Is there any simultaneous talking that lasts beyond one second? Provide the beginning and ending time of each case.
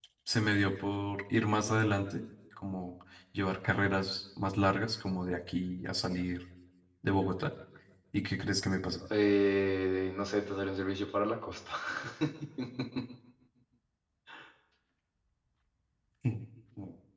none

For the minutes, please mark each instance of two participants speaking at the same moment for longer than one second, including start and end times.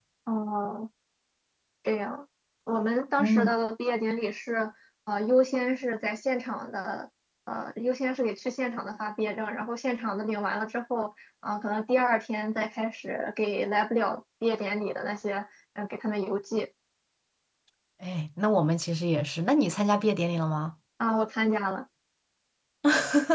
none

